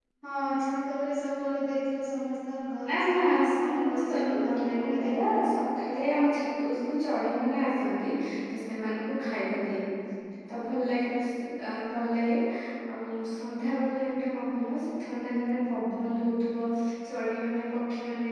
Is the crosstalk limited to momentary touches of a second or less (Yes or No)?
No